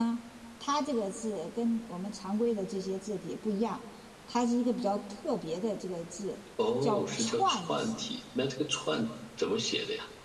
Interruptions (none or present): present